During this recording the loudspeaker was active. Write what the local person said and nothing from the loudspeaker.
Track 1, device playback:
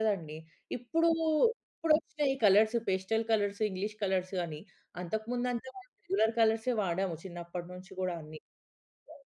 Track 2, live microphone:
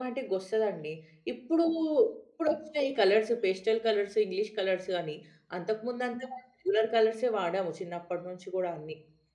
none

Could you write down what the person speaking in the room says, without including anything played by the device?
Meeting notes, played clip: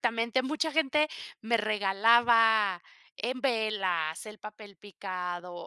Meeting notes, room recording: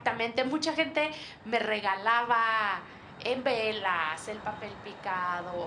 none

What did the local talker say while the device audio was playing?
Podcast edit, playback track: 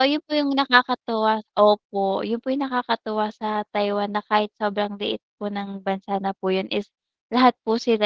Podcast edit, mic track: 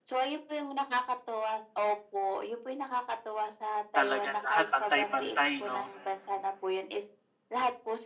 Talaga, lahat pantay-pantay 'no.

